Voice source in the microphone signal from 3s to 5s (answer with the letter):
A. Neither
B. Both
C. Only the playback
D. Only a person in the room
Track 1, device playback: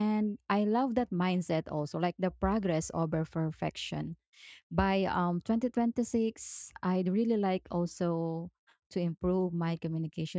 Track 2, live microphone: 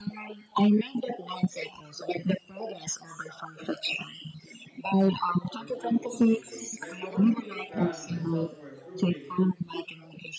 C